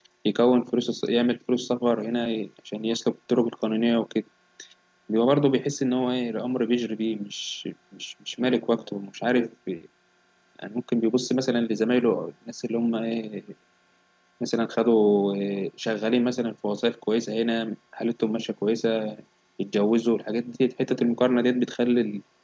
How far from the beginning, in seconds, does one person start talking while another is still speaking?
none

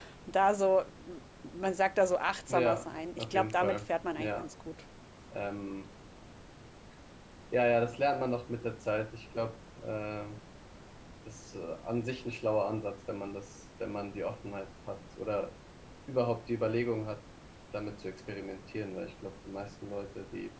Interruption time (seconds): 2.5 s

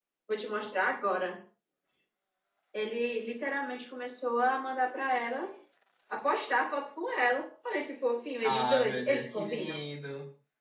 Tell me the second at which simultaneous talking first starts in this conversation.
8.4 s

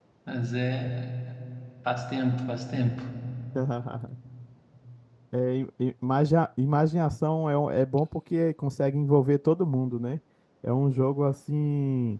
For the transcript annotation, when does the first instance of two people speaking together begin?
none

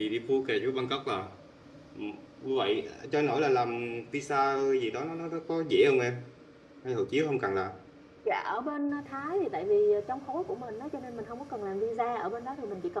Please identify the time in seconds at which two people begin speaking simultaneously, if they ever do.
none

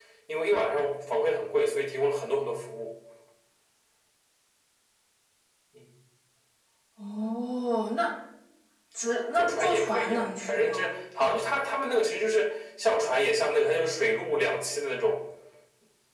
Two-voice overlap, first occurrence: 9.3 s

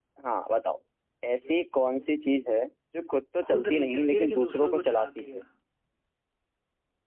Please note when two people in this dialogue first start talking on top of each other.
3.4 s

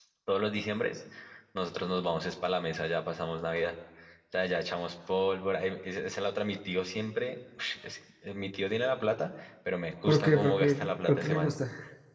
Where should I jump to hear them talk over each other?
10.1 s

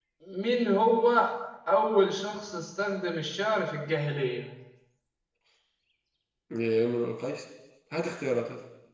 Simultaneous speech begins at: none

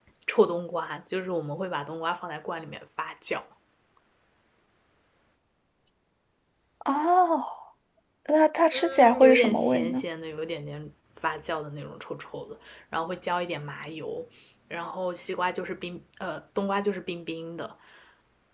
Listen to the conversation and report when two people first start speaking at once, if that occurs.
8.7 s

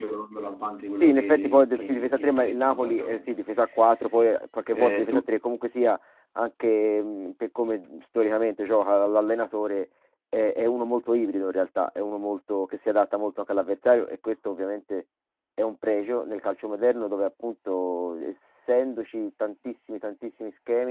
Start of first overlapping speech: 1.0 s

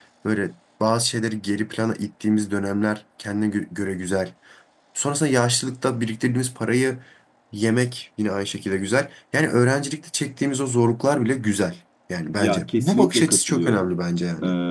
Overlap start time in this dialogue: 12.4 s

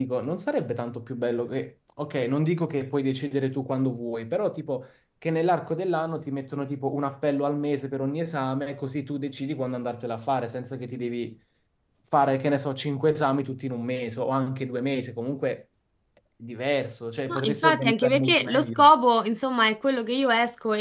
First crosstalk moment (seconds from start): 17.3 s

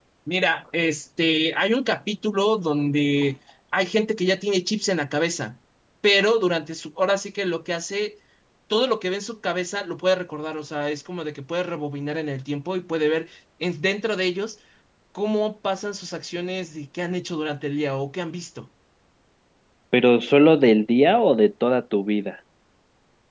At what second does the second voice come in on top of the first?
none

